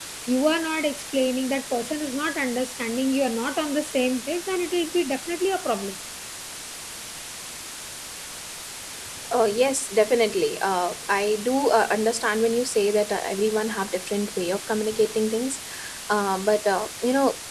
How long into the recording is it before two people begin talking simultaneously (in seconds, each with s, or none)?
none